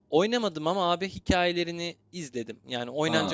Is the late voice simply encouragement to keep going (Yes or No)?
No